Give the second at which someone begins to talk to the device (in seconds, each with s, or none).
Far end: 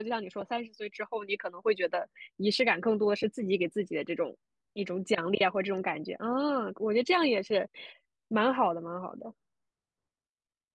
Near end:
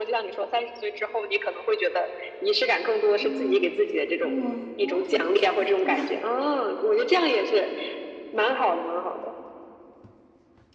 3.2 s